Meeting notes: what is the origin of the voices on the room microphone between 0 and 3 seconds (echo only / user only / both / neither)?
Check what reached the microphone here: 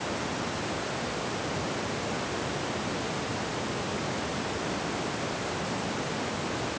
neither